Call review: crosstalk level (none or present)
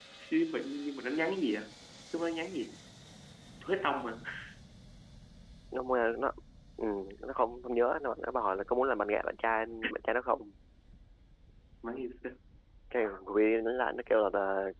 none